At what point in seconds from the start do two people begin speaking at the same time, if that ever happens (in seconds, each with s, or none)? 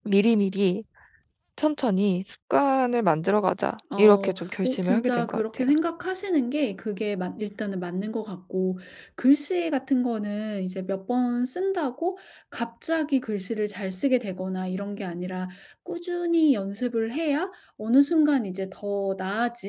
3.9 s